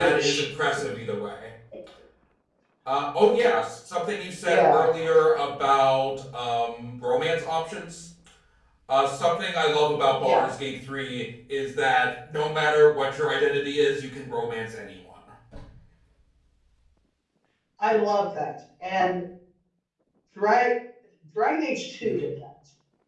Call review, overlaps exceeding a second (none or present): none